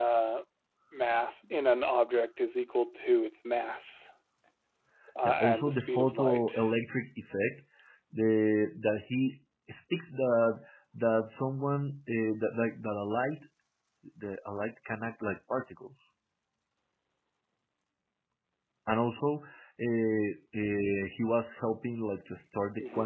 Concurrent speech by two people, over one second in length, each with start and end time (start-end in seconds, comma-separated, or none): 5.2-6.7